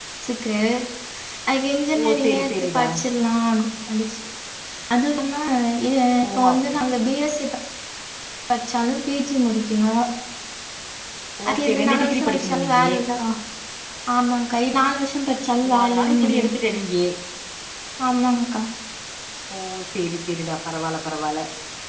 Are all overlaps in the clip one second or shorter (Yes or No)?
No